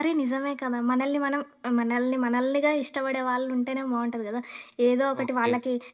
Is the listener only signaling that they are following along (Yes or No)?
Yes